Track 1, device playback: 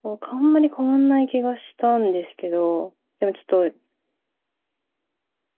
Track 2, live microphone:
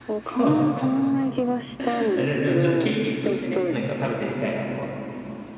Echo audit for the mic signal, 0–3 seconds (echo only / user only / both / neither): both